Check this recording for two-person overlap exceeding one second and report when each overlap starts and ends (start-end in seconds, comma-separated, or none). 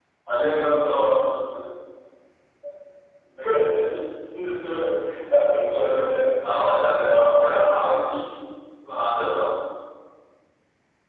none